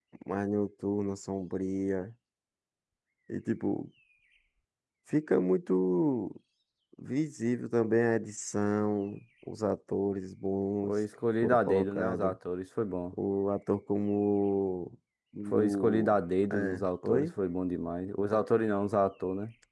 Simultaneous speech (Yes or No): Yes